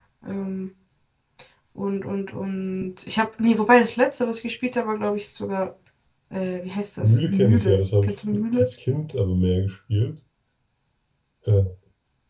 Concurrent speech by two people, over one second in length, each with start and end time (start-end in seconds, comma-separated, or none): 7.0-8.7